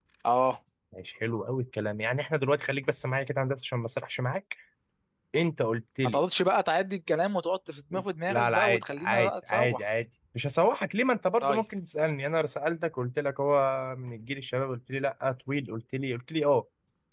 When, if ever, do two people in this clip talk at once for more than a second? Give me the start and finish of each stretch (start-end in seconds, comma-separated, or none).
8.3-9.8